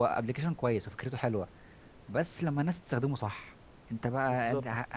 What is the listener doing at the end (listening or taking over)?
listening